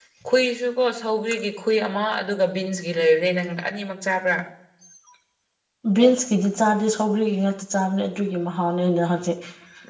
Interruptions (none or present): none